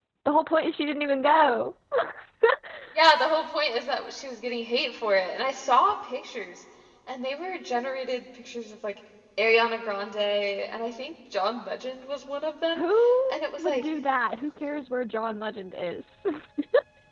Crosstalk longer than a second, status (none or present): none